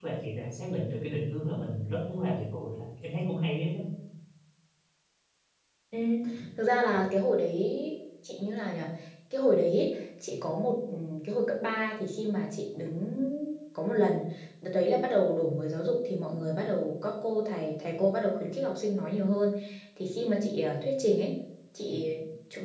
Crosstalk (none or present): none